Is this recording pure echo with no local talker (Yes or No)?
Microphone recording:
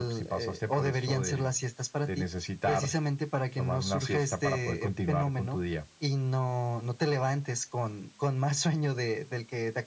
Yes